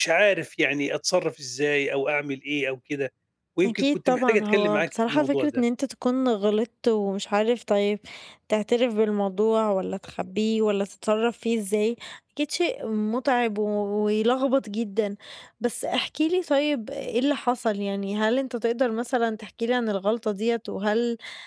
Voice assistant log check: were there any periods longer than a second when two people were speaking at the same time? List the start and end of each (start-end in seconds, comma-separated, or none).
3.6-5.6